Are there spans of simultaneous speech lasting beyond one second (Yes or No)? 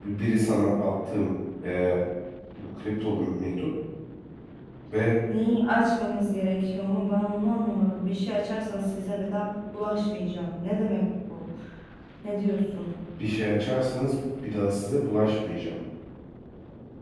No